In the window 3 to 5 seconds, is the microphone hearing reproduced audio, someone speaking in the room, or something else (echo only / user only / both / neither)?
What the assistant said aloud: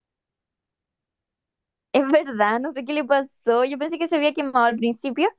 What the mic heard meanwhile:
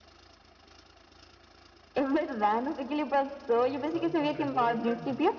both